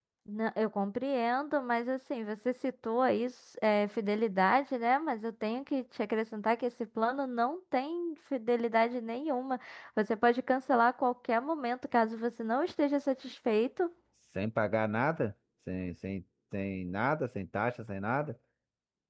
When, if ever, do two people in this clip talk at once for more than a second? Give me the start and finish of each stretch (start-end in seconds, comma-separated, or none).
none